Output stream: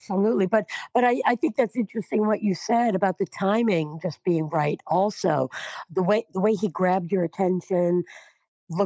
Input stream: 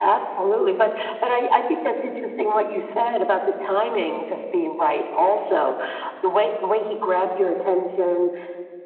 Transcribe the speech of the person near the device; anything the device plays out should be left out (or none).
none